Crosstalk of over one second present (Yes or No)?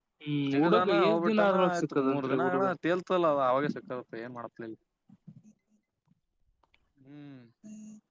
Yes